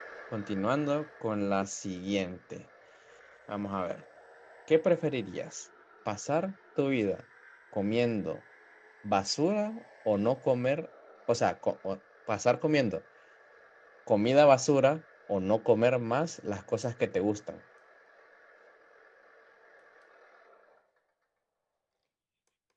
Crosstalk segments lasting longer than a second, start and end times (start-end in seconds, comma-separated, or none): none